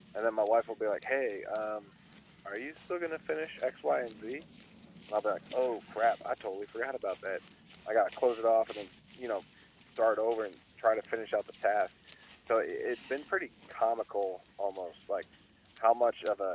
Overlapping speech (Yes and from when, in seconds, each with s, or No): No